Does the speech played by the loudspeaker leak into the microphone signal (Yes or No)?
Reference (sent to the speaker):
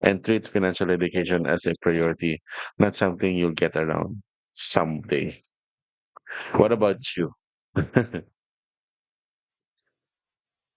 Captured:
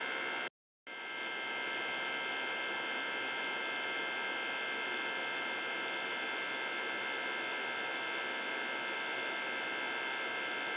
No